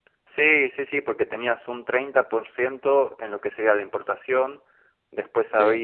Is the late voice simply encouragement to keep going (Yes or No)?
Yes